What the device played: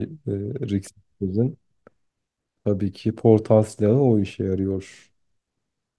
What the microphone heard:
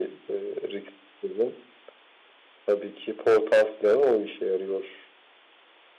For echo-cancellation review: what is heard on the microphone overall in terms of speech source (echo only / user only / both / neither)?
echo only